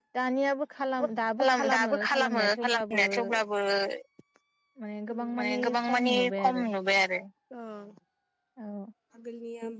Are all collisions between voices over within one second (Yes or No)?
No